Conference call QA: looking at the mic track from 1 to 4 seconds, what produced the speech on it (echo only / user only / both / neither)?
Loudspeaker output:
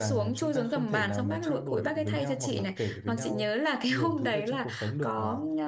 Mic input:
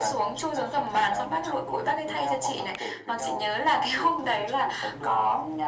echo only